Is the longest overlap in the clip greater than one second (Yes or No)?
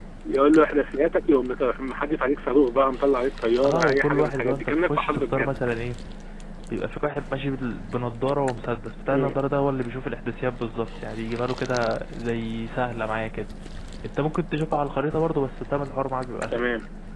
Yes